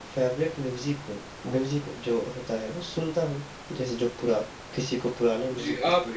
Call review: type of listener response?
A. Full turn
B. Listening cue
A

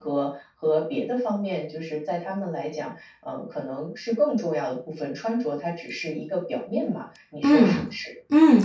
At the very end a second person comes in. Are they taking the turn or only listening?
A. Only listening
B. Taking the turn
B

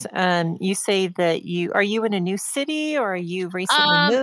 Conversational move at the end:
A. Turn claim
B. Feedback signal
A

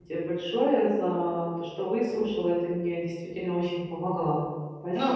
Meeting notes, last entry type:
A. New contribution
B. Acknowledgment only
A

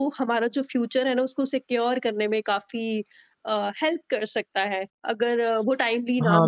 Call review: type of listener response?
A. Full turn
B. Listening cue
A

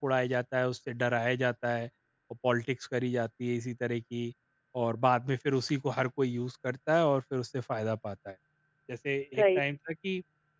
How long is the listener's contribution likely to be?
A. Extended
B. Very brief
B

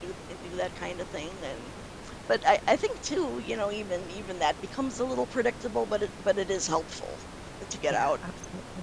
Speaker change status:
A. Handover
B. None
A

